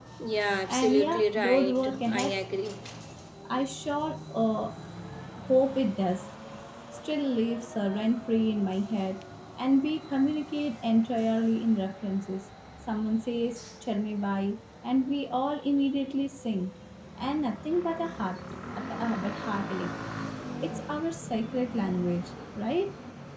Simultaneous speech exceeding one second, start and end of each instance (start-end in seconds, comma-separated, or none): 0.7-2.4